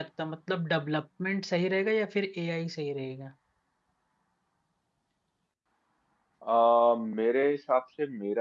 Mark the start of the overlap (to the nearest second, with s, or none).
none